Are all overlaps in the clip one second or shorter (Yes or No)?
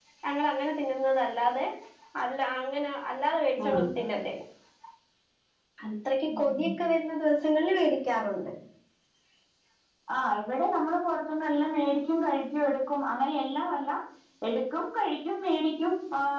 Yes